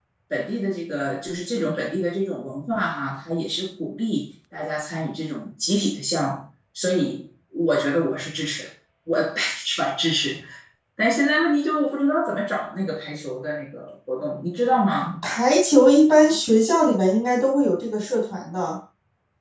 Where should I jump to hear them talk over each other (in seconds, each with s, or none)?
none